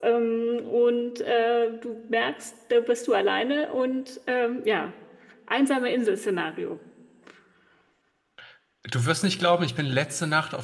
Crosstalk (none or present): none